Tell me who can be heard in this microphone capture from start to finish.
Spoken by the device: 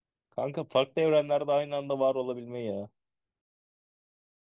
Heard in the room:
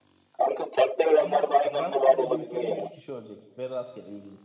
both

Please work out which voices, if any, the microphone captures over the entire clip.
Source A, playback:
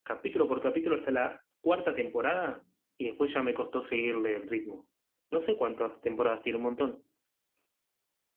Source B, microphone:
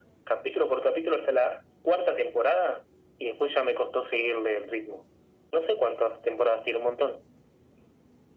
echo only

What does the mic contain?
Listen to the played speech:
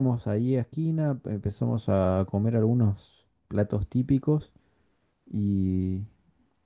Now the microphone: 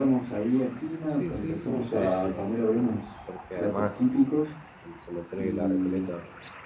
both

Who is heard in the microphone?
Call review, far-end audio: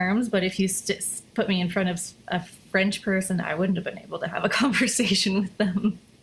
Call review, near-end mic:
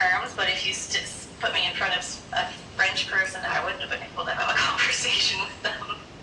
echo only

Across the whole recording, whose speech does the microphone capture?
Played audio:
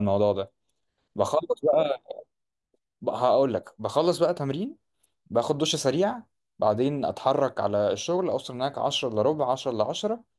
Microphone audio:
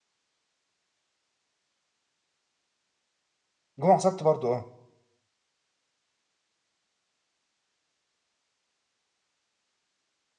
user only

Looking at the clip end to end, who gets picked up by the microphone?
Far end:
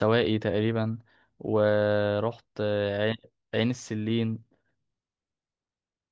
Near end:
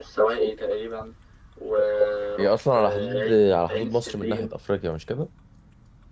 both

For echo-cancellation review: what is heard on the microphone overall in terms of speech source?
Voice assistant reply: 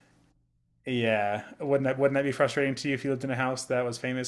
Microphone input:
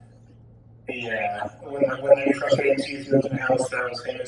echo only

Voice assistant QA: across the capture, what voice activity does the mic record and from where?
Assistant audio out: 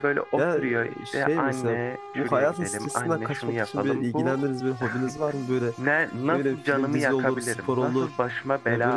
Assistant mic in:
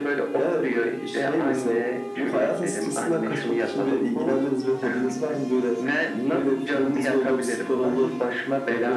echo only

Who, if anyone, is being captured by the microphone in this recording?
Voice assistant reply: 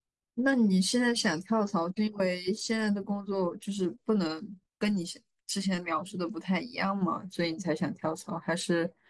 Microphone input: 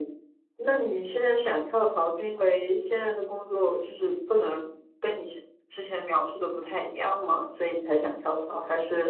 echo only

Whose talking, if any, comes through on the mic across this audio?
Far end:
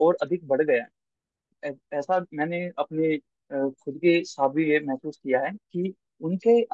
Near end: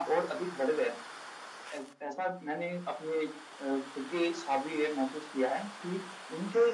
echo only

